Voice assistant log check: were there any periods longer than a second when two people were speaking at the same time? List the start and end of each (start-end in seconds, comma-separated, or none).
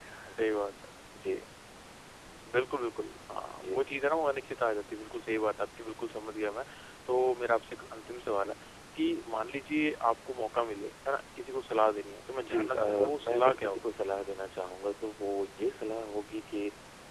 12.5-13.8